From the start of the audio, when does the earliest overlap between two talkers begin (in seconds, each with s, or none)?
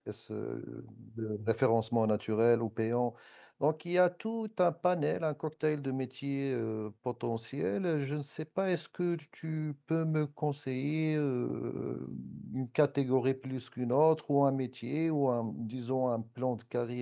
none